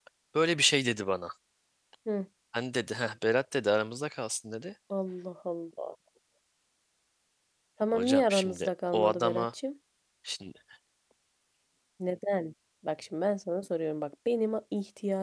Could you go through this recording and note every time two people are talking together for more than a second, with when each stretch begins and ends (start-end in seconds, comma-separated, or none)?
7.9-9.4